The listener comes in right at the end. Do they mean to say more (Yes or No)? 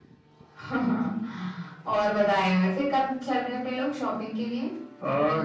Yes